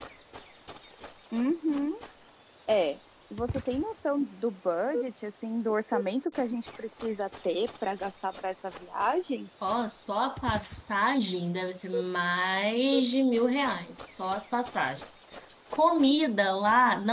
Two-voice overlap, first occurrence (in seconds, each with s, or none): none